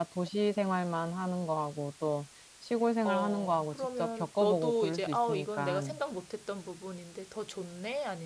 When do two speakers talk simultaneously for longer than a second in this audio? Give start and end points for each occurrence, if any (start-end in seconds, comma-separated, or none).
3.0-5.9